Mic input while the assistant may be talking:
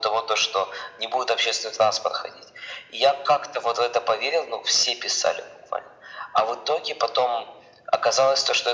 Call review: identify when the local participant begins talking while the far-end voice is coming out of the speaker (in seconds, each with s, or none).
none